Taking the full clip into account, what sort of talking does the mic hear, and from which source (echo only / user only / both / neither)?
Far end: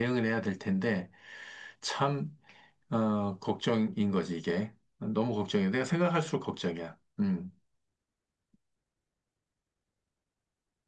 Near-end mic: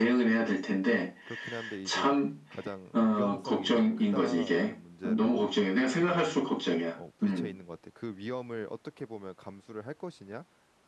both